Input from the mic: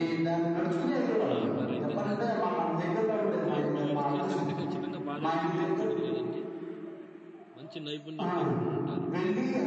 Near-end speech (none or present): present